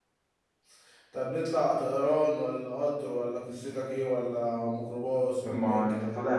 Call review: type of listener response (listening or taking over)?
taking over